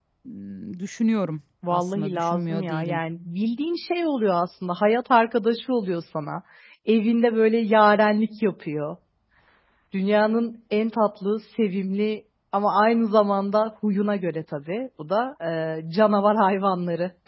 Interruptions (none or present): present